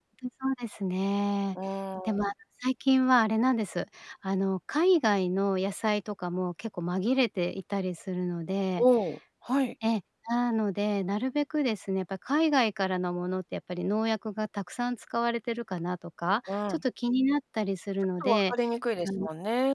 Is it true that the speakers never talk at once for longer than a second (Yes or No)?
Yes